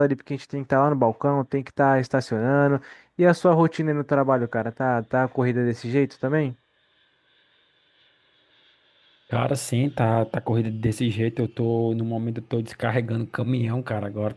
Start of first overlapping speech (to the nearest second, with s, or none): none